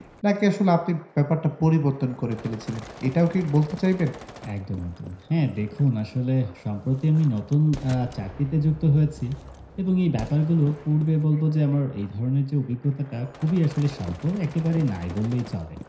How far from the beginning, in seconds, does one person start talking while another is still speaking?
none

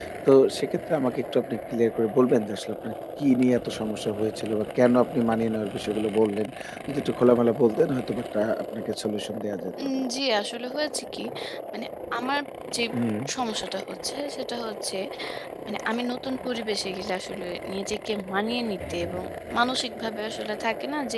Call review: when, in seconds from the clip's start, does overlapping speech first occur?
none

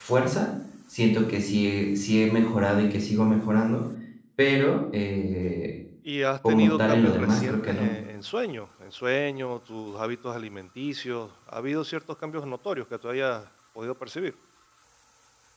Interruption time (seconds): 6.5 s

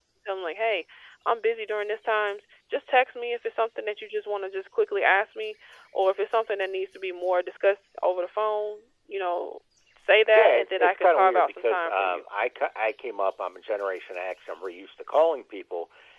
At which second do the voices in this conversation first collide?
10.4 s

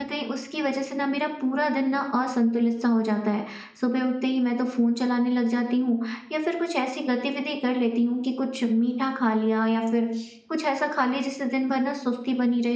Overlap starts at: none

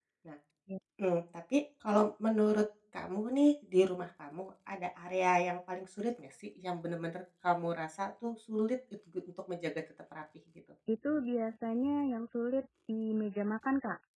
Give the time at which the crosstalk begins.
none

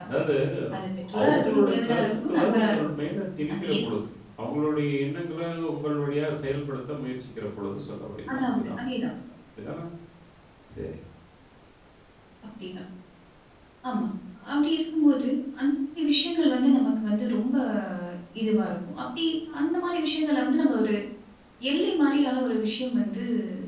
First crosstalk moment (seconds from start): 1.2 s

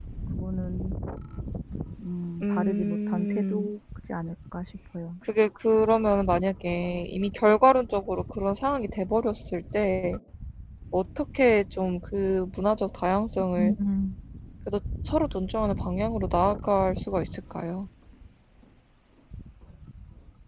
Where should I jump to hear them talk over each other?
2.4 s

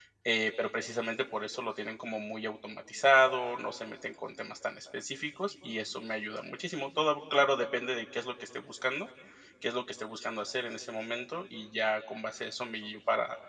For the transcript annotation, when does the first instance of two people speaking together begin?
none

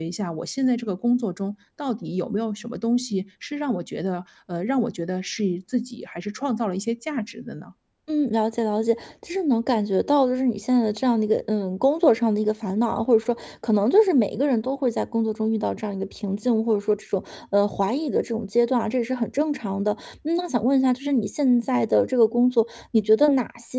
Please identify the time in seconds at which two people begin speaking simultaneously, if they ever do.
none

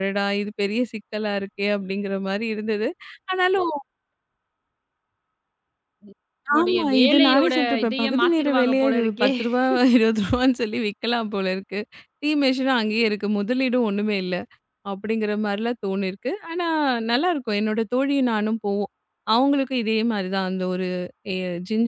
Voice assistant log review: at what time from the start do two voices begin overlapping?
6.6 s

